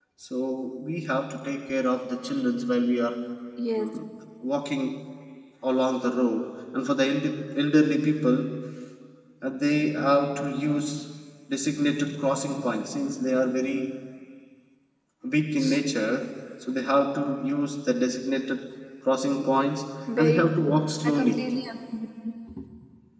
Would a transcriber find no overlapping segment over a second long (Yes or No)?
No